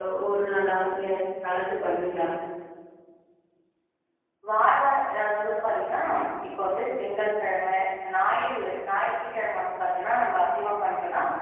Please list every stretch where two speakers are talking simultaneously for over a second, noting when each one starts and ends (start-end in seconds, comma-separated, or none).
none